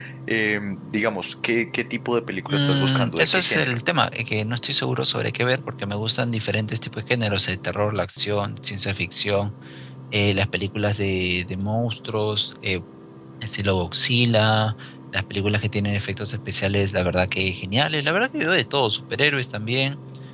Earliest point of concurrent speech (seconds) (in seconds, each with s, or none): 2.5 s